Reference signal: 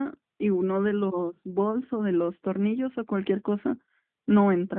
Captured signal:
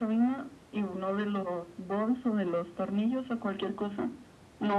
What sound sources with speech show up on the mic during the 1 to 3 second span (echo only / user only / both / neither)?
echo only